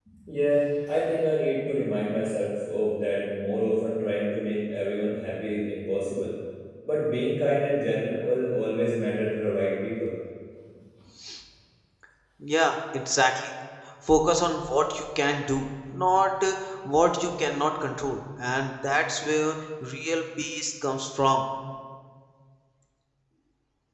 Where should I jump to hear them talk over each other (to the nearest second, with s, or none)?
none